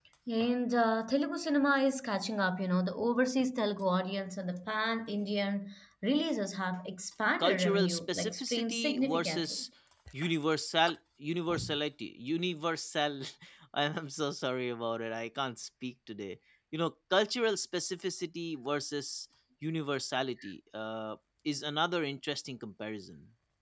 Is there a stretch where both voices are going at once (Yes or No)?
Yes